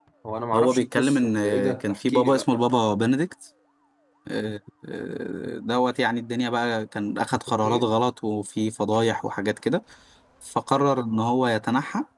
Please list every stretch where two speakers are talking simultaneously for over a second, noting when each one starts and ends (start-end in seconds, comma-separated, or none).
0.5-2.6